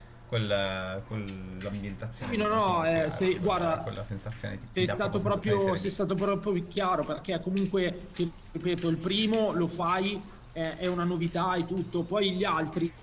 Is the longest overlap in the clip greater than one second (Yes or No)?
Yes